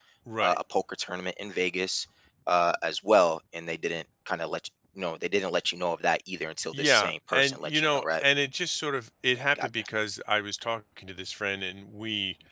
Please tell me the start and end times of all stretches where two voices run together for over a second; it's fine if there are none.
6.7-8.2

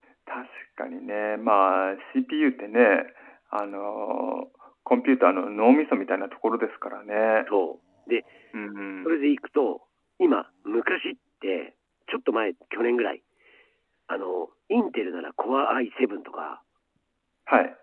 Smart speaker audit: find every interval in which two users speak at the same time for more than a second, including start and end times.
none

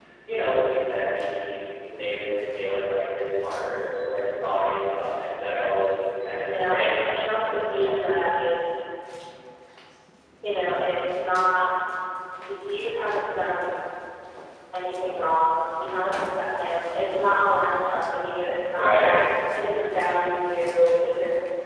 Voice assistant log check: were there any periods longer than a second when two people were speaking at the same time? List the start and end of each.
6.5-8.2

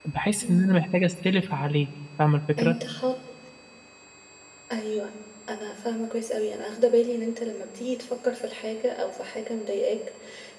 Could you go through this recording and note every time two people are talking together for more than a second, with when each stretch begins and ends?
none

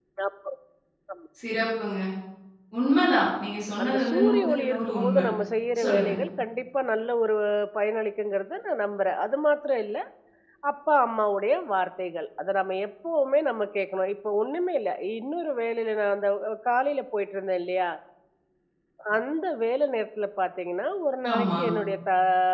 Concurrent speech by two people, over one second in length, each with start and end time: 3.8-5.2

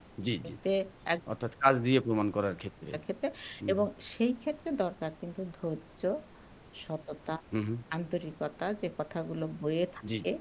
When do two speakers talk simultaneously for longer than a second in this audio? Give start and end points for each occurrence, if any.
none

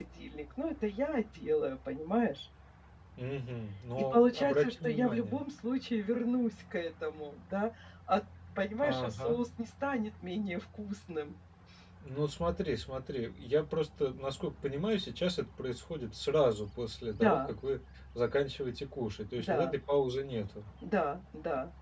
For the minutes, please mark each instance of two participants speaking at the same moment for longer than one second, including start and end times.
4.0-5.4

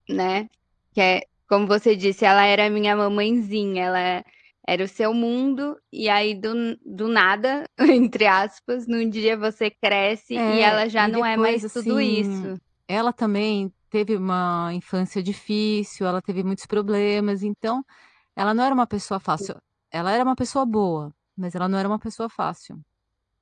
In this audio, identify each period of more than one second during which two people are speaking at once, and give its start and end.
10.3-12.5

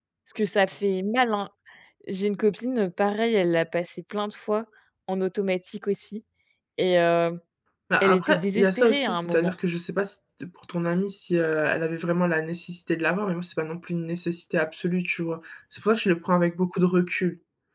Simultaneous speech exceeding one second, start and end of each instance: 8.0-9.5

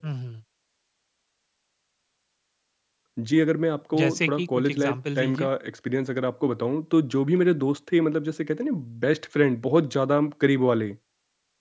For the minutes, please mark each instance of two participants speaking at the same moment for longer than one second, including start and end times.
4.0-5.5

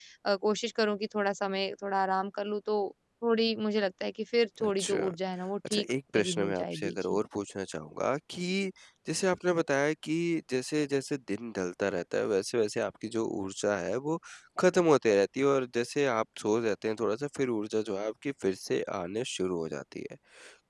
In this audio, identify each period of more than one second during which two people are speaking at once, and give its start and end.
5.7-7.2

